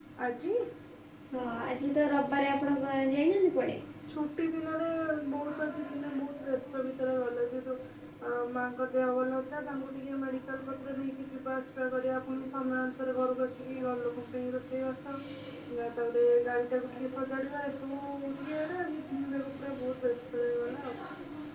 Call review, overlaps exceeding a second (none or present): none